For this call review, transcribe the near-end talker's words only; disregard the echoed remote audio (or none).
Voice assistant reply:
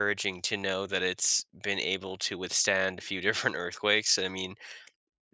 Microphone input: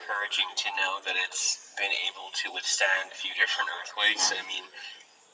Yeah.